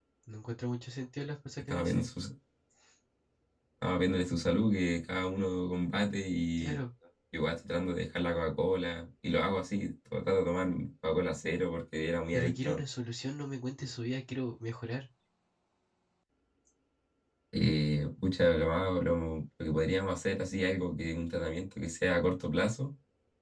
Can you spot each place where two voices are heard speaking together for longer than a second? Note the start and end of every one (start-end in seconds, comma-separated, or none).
none